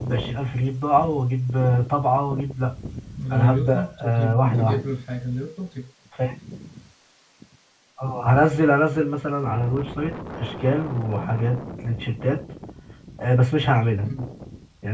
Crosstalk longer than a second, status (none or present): present